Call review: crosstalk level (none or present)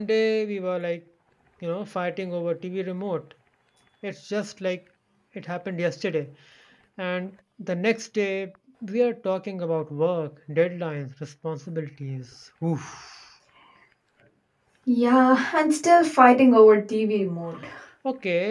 none